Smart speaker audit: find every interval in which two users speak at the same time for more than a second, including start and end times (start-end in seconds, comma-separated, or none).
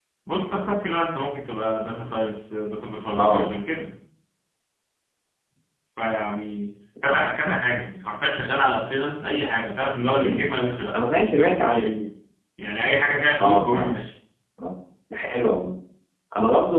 none